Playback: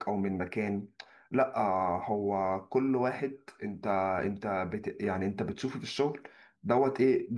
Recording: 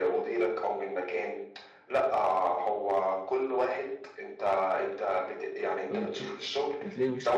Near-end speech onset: 5.9 s

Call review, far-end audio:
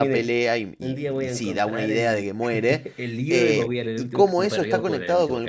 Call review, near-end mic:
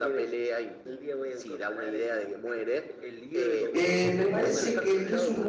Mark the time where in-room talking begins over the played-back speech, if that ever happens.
3.7 s

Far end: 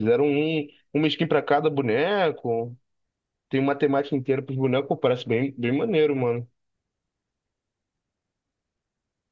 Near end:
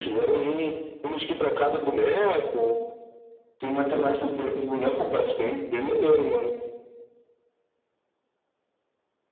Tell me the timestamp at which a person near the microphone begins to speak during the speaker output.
none

